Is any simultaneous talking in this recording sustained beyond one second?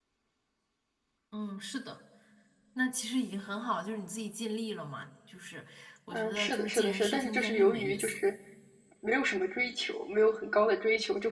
Yes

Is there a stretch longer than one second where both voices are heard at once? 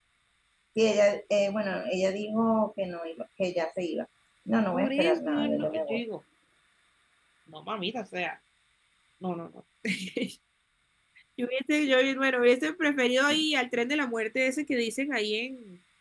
Yes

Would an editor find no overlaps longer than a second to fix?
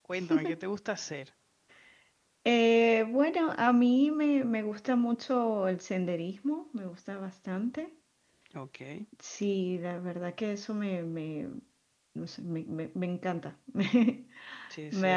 Yes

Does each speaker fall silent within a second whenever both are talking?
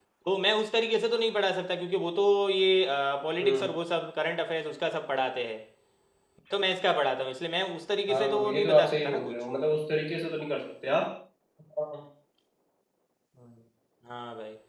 No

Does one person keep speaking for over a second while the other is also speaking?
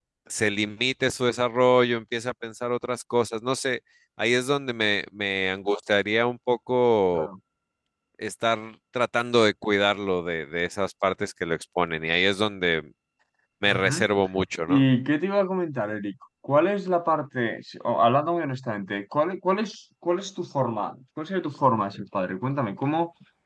No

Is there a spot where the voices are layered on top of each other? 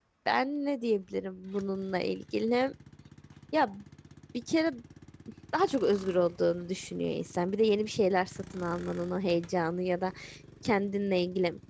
No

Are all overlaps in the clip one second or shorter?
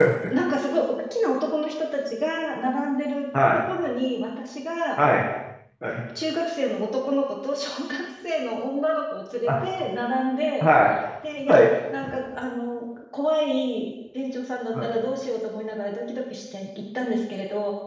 Yes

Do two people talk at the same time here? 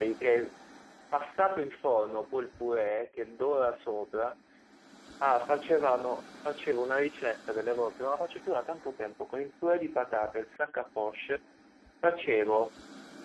No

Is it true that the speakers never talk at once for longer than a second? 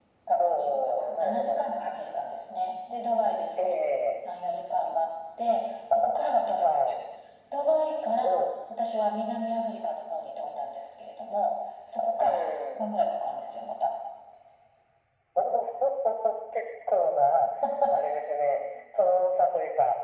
No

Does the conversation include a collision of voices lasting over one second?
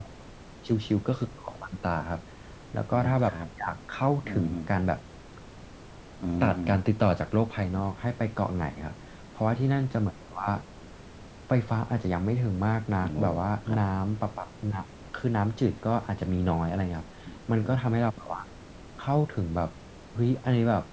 No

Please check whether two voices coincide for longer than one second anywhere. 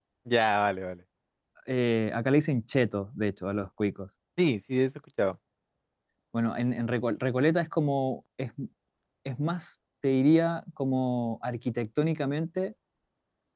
No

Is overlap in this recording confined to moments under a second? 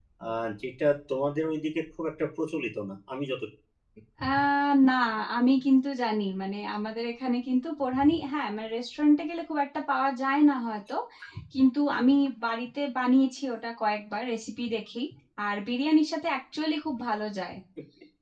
Yes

